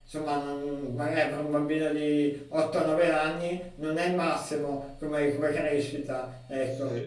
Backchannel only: No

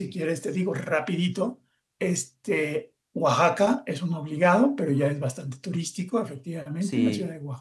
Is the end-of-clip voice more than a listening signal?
No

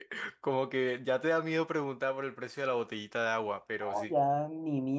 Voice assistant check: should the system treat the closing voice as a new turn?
Yes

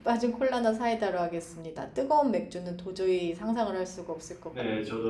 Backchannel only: No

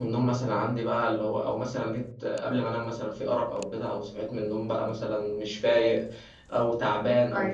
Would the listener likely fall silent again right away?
Yes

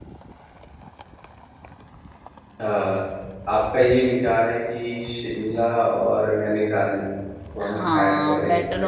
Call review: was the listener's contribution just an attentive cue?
No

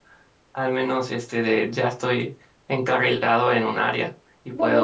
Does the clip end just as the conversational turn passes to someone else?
Yes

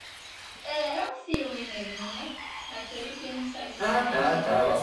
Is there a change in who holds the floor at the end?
Yes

